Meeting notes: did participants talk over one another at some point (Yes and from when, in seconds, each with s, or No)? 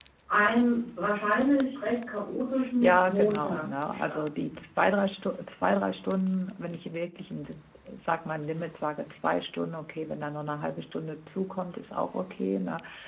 Yes, from 2.8 s